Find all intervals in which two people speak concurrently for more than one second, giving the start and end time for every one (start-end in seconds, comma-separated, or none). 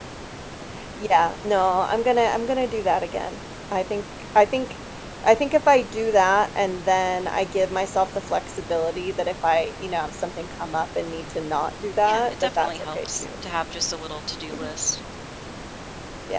12.0-13.2